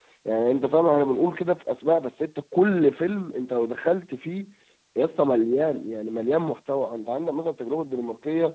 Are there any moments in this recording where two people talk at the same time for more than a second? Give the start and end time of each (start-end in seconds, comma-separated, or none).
none